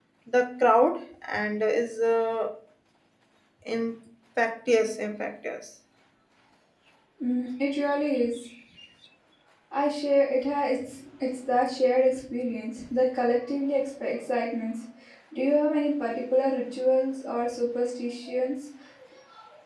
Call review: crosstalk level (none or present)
none